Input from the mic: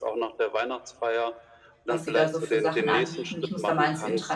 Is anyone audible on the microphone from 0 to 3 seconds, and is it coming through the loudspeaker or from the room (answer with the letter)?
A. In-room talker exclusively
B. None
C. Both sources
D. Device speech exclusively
C